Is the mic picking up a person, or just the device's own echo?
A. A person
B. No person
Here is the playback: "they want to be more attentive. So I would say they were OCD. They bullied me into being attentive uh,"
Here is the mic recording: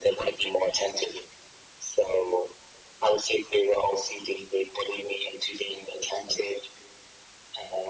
B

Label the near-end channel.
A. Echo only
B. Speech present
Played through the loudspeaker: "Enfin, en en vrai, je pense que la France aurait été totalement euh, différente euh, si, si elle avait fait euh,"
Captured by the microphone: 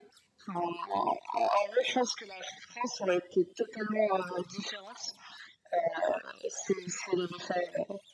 A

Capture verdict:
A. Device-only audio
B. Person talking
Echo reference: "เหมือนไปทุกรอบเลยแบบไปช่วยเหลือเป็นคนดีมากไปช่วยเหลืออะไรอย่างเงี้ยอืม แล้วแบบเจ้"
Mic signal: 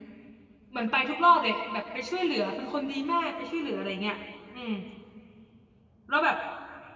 A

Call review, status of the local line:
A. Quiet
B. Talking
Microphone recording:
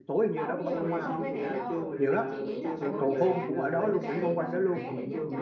B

